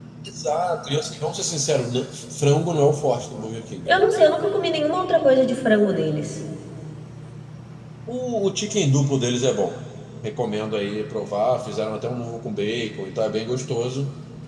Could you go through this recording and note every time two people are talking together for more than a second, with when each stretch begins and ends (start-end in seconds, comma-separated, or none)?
none